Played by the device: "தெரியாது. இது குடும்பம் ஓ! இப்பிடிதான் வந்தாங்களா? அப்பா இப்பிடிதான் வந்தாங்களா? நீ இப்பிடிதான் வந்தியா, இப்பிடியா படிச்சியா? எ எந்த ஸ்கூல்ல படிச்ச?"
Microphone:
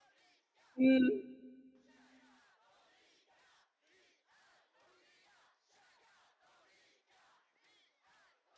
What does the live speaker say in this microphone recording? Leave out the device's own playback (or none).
ம்.